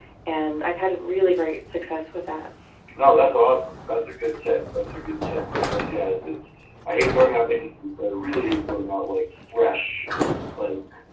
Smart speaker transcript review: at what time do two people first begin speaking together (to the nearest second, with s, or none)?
none